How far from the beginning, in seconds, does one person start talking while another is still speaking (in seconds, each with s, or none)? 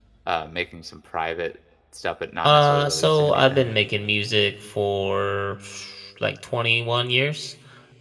2.4 s